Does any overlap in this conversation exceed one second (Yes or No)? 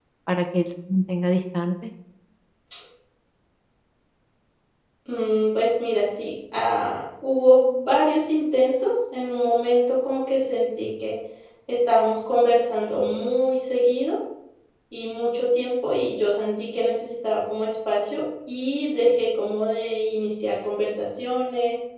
No